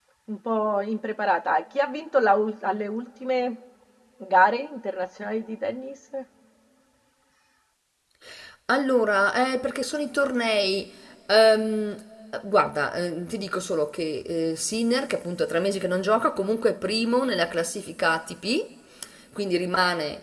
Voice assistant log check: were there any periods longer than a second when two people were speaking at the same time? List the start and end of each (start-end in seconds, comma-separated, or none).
none